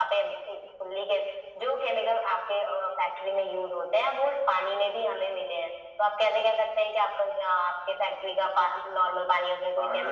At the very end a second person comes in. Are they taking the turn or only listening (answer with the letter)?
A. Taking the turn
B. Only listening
A